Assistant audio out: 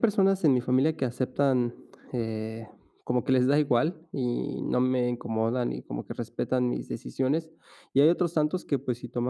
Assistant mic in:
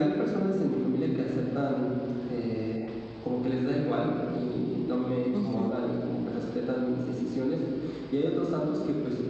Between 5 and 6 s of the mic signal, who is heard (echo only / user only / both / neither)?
both